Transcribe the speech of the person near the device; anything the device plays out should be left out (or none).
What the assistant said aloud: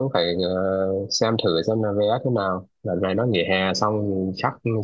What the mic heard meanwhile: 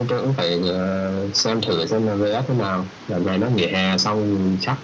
none